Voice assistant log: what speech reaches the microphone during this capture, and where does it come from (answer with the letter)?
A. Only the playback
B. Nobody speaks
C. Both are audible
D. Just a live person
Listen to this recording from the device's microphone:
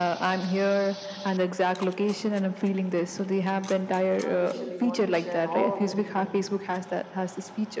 C